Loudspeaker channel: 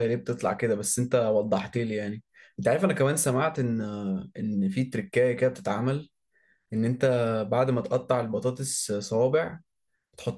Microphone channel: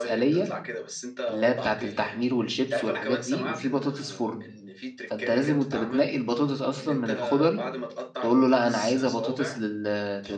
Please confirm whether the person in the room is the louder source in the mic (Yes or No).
Yes